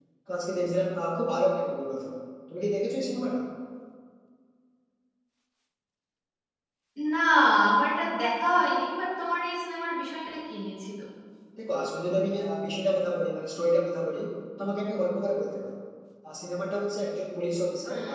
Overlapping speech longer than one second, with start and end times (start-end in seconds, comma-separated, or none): none